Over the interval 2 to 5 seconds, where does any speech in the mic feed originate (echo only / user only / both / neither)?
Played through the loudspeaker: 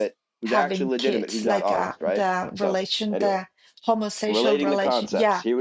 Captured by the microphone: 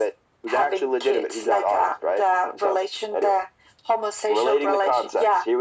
echo only